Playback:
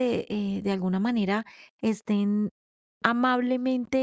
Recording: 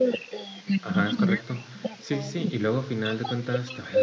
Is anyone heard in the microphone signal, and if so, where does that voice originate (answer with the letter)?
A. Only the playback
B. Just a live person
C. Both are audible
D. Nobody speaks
C